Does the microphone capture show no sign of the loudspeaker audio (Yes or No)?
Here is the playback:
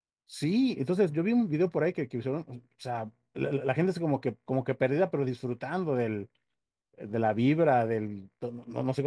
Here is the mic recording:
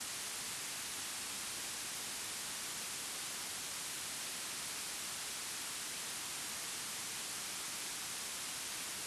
Yes